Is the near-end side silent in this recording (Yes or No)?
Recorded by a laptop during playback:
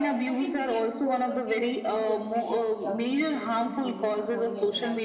No